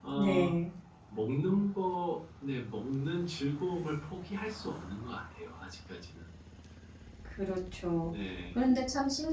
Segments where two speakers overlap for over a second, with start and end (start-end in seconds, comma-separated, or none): none